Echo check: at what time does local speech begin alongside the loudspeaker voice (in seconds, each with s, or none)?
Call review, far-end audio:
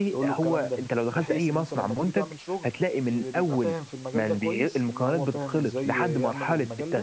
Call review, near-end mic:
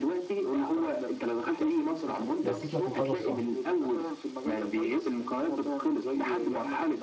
2.4 s